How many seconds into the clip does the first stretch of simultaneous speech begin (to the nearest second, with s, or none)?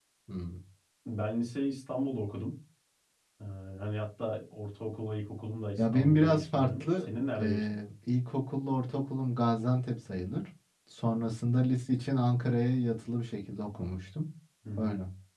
6 s